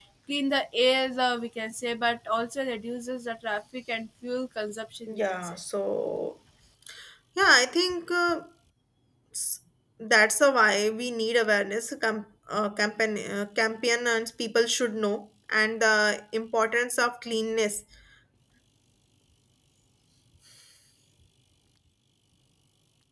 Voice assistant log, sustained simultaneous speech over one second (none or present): none